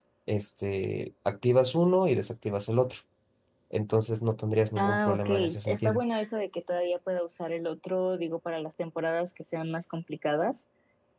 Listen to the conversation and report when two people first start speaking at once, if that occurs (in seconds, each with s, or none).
4.8 s